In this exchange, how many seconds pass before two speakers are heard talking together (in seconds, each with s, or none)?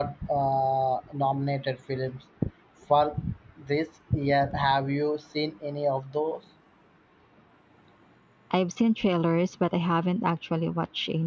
none